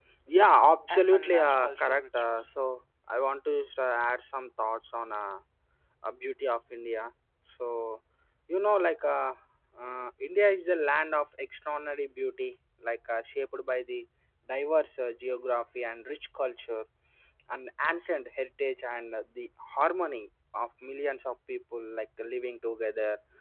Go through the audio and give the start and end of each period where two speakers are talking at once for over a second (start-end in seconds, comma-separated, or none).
0.9-2.5